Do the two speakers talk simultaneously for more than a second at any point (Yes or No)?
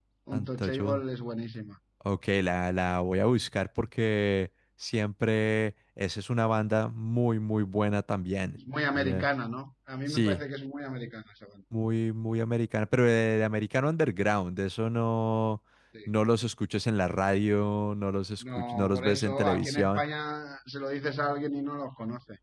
Yes